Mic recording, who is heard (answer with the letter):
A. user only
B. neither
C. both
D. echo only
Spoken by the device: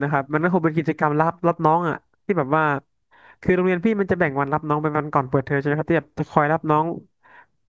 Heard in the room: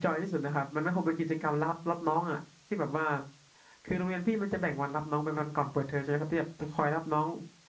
D